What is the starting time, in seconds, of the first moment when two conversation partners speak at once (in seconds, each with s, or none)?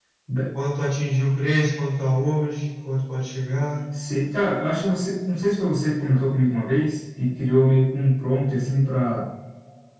none